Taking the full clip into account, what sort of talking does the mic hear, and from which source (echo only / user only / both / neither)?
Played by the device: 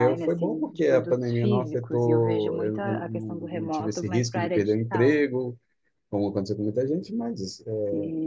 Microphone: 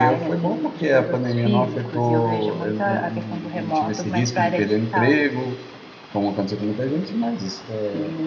echo only